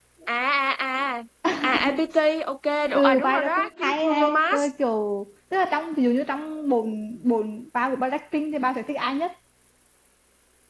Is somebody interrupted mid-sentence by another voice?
Yes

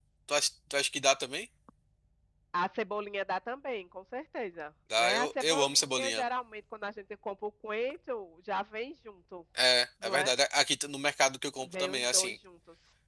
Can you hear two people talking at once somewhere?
Yes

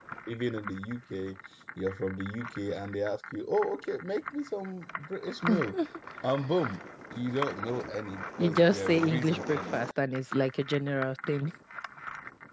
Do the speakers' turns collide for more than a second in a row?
Yes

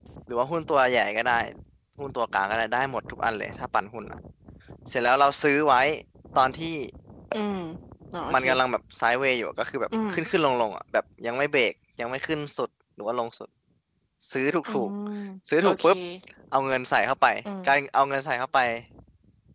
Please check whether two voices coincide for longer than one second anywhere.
No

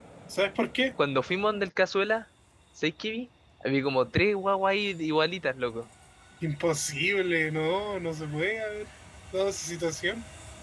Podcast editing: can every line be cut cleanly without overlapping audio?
Yes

